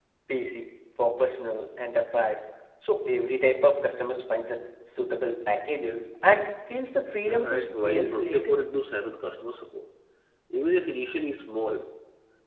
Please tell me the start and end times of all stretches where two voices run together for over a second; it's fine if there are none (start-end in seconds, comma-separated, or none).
7.2-8.6